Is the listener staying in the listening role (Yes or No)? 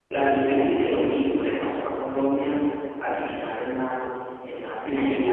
Yes